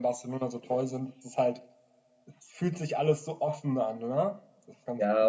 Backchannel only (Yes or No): No